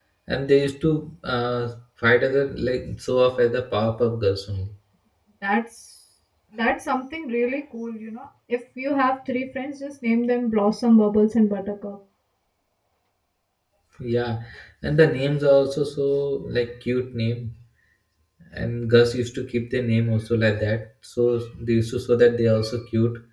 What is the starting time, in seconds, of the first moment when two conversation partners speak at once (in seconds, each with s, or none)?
none